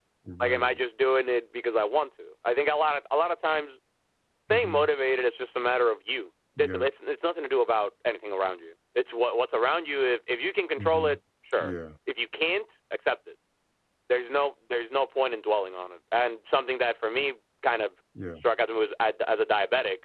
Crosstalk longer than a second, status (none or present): none